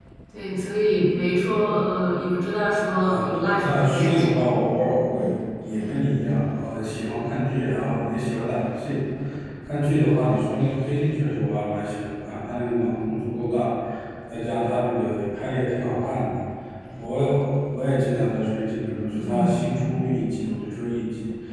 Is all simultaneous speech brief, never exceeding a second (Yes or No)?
No